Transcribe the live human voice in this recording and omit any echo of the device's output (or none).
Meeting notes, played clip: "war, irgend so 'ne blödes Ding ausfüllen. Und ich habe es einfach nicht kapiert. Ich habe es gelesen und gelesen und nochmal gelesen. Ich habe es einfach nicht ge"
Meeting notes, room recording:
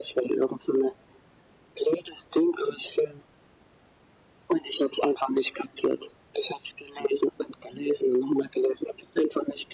none